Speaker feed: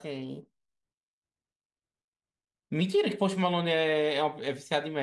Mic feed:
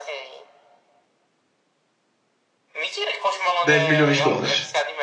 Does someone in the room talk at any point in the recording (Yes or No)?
Yes